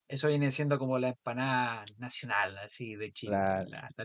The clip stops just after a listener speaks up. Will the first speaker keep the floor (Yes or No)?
No